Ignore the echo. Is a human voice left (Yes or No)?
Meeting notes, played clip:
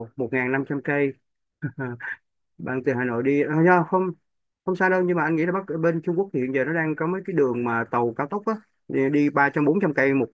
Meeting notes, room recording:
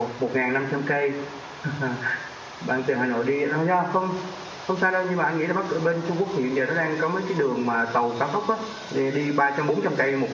No